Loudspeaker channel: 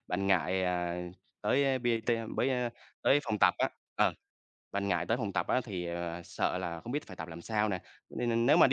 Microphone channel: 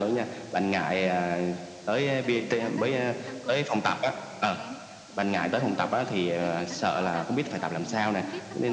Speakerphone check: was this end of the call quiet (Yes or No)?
No